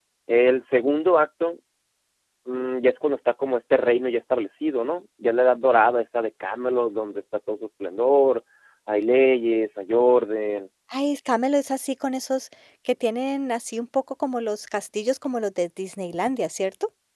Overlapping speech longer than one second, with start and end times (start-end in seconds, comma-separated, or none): none